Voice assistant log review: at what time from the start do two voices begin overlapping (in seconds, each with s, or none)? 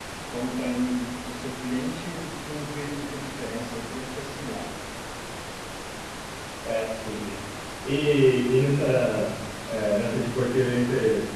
none